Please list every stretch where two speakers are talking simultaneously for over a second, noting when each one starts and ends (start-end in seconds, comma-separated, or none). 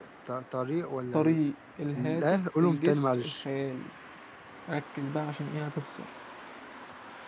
2.0-3.4